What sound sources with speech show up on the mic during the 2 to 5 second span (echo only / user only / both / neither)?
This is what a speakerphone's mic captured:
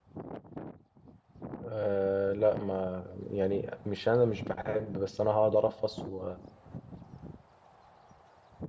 user only